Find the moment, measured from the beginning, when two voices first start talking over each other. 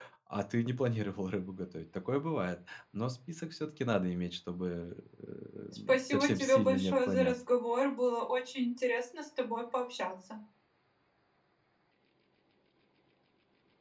5.9 s

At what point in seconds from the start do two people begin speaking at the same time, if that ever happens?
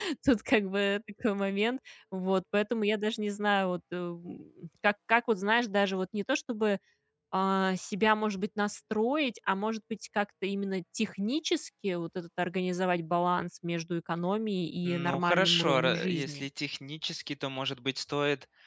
14.8 s

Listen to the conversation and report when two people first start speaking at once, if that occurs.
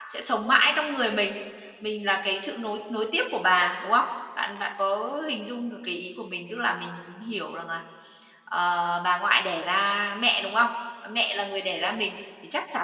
none

